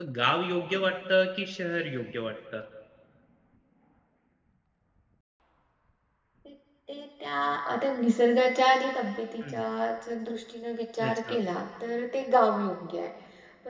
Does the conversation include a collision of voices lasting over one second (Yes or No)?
No